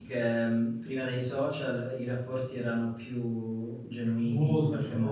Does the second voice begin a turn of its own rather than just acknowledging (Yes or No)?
Yes